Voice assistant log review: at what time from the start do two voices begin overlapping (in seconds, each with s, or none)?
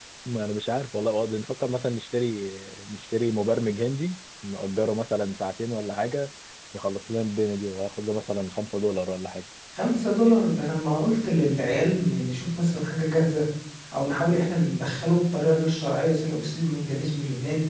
none